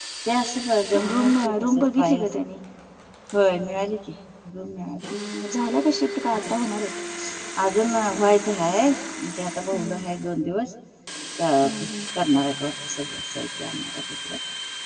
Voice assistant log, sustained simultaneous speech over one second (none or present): present